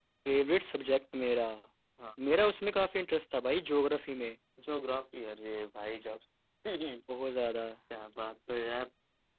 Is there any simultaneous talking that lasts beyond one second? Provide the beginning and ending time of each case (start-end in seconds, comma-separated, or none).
none